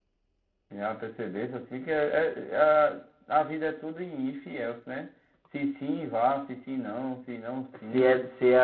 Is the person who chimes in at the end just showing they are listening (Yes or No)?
No